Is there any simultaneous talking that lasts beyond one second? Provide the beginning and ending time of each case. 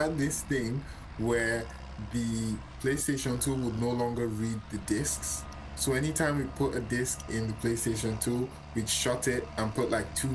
none

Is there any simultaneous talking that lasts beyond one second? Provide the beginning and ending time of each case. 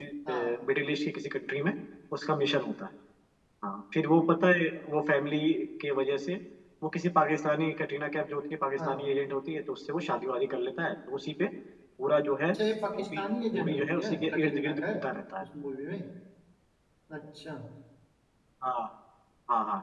13.6-15.0

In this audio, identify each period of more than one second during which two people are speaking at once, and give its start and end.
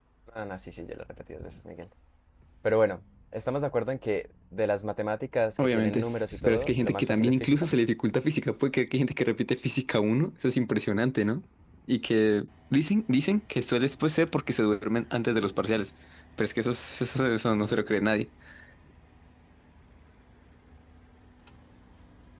6.5-7.7

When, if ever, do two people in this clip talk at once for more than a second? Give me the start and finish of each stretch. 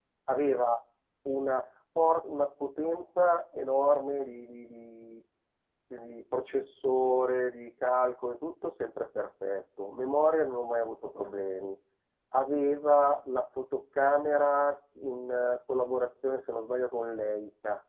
none

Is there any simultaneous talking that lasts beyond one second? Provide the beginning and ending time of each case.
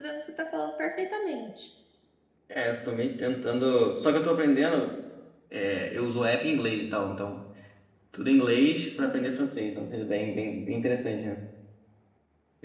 none

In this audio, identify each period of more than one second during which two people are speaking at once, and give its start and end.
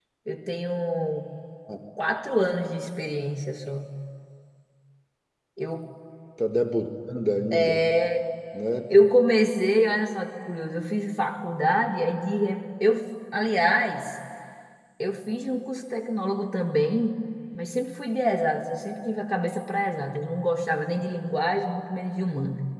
none

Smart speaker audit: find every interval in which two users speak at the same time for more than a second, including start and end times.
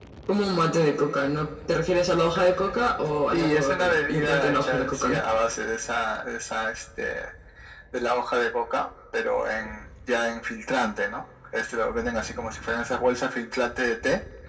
3.3-5.2

